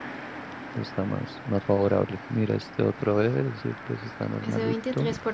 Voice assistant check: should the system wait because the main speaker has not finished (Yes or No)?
No